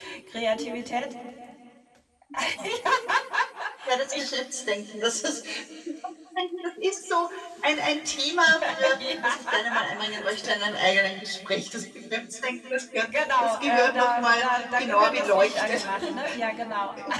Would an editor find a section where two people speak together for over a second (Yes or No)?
Yes